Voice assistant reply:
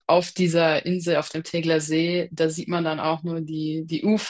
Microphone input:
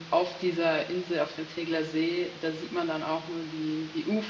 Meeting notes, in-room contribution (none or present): none